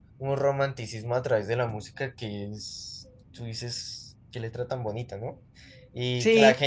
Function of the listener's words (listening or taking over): listening